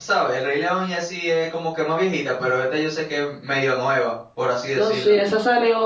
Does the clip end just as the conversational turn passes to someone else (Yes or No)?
Yes